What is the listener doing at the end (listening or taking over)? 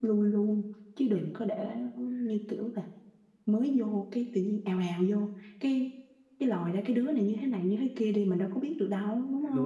taking over